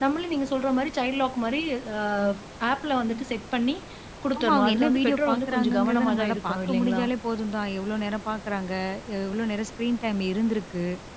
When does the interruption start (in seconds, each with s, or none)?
4.4 s